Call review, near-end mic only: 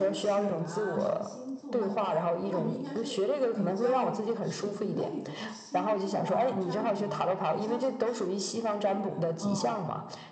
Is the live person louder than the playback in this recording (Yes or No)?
No